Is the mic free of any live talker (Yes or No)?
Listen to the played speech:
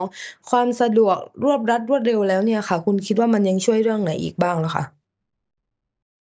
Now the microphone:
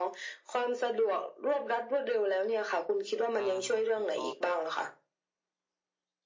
No